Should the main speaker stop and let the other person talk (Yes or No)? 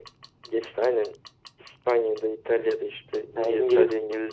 No